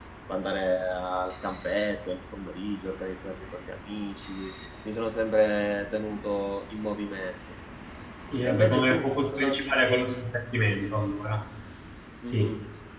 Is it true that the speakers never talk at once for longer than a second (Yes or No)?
No